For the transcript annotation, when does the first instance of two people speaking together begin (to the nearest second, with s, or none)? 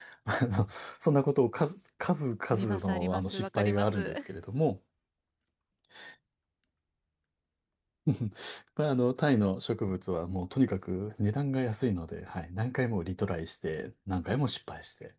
3 s